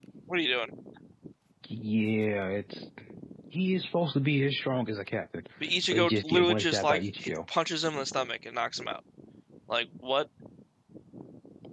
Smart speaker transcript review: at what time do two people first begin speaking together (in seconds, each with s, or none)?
5.9 s